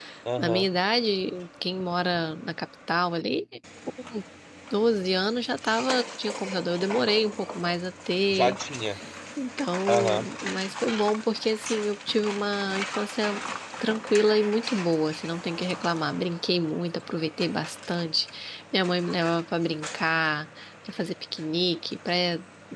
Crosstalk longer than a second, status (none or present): none